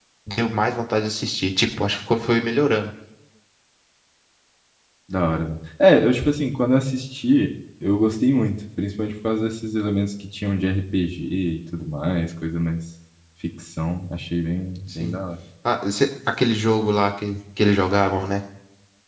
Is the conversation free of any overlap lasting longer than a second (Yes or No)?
Yes